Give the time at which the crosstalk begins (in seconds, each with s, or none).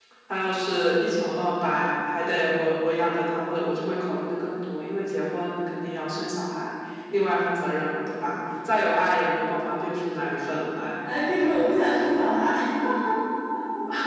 none